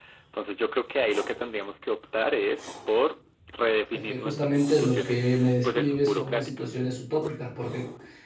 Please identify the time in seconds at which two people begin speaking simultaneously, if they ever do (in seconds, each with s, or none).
3.9 s